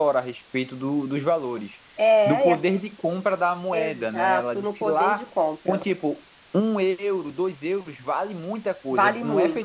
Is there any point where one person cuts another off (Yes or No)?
Yes